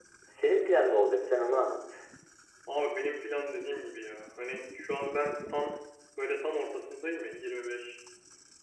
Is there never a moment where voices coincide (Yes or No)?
Yes